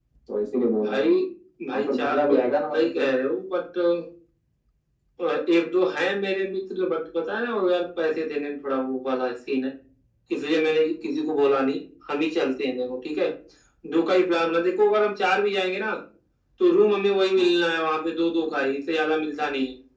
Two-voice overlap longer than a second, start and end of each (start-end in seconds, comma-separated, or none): 1.8-3.1